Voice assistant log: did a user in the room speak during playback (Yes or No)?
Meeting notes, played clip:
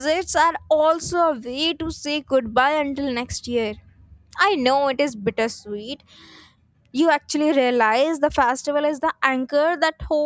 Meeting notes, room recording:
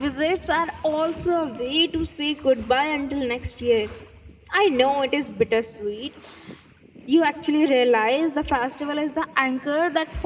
No